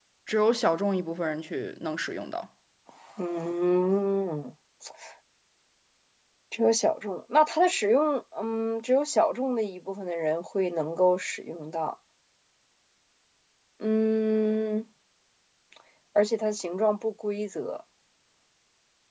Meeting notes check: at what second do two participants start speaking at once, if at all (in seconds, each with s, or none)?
none